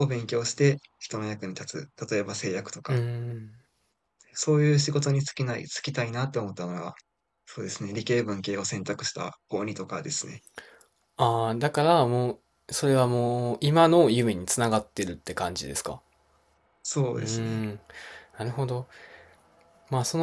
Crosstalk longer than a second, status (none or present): none